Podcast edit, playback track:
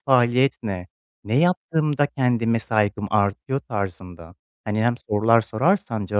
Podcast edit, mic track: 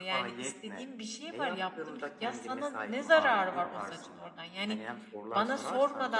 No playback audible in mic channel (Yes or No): No